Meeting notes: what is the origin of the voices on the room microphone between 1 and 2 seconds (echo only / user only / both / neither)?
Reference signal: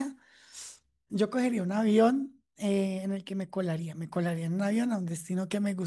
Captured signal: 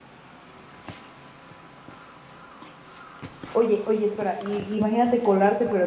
neither